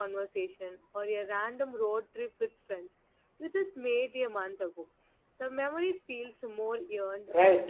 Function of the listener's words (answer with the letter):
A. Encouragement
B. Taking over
B